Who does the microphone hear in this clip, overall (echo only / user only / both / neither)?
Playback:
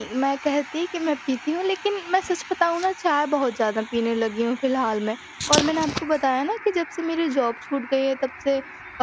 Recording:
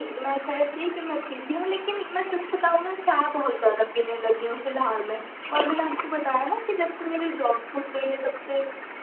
echo only